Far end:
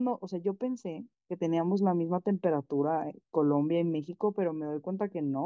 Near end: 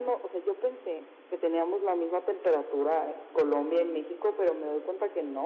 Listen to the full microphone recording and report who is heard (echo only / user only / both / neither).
echo only